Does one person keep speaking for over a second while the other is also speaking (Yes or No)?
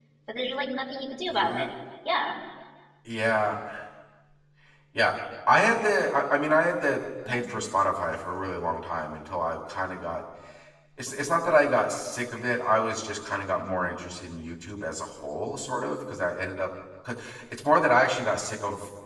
No